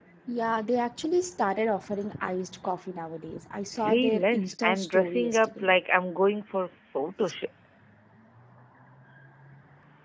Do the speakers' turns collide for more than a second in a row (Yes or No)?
Yes